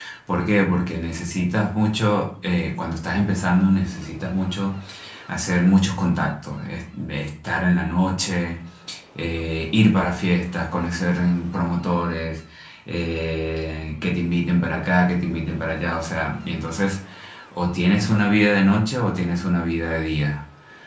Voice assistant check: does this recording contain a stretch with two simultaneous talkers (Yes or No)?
No